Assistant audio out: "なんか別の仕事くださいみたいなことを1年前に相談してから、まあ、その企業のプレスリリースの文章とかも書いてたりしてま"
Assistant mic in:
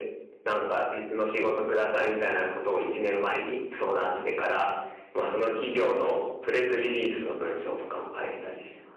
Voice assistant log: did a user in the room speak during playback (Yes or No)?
No